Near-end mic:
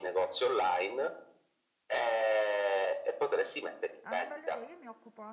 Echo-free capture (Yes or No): No